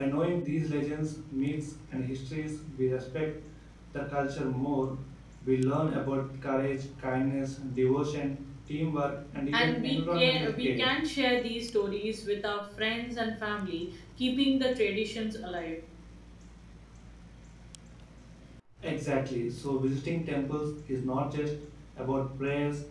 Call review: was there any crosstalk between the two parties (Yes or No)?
Yes